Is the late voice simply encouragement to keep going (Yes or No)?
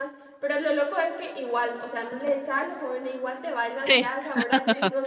Yes